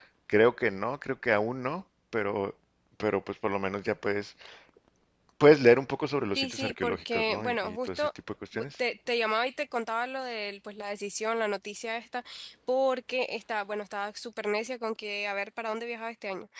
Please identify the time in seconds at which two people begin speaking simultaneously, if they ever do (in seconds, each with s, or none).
6.3 s